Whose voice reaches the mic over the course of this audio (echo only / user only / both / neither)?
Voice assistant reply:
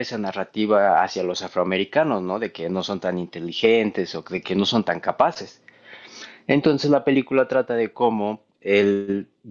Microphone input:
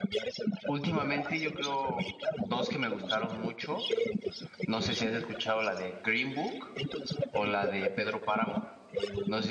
both